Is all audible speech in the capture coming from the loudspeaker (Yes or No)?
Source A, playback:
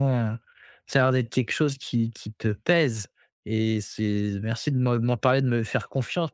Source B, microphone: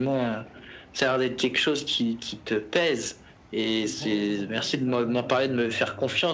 No